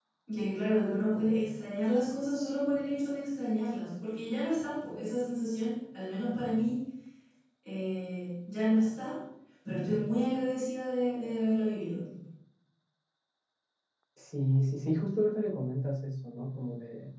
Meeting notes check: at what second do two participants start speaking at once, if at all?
none

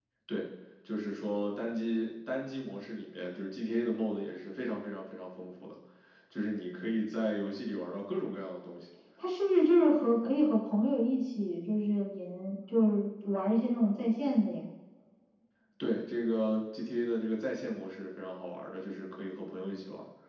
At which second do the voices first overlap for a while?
none

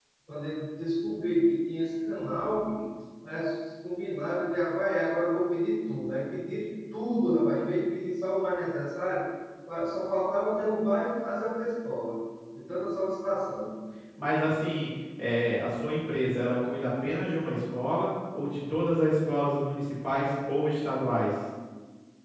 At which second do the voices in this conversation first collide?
none

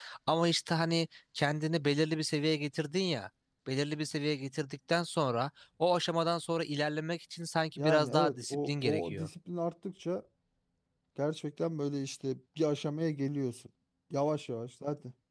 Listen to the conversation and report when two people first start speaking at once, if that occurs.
7.8 s

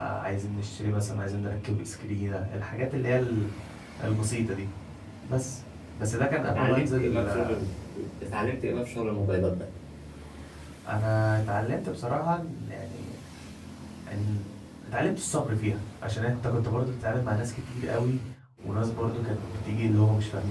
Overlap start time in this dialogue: 6.4 s

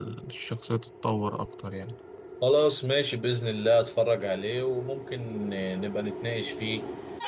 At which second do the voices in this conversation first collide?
none

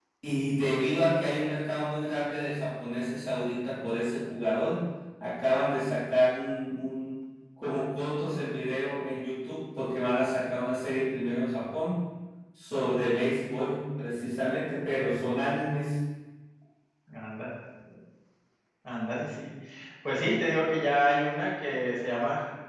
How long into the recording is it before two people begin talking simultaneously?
none

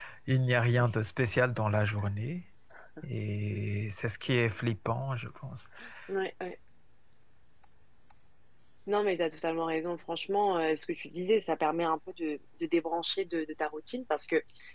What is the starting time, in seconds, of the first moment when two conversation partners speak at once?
none

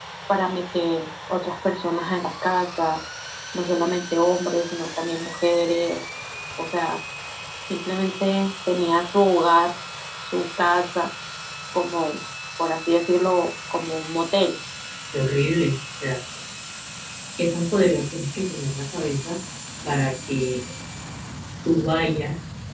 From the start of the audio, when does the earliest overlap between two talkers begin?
none

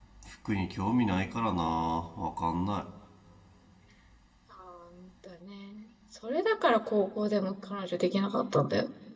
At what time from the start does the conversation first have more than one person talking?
none

